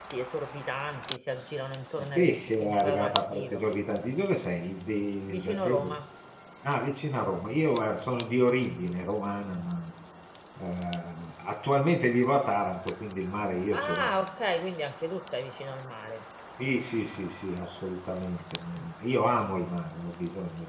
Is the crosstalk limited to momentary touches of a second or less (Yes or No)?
No